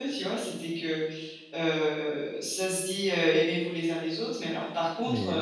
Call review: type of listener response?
listening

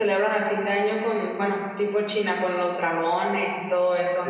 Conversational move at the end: taking over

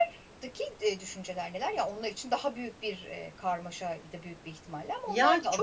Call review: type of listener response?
taking over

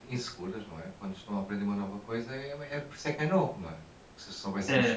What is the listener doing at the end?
listening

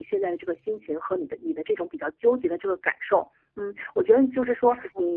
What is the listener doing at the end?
listening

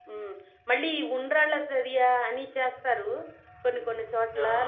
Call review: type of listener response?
listening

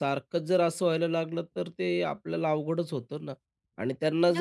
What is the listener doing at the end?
listening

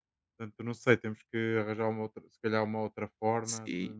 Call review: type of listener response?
taking over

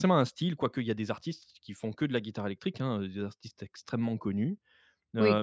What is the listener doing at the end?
listening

